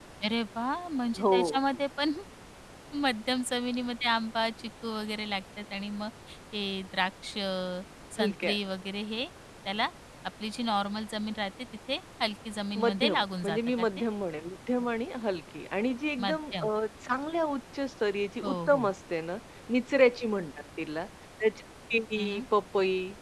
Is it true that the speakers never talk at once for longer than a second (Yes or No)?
No